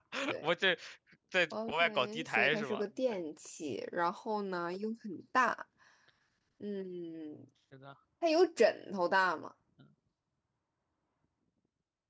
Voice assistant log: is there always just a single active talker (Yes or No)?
No